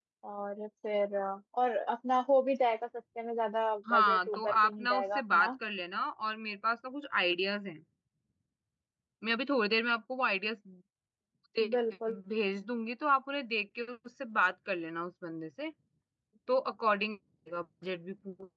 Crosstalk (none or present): present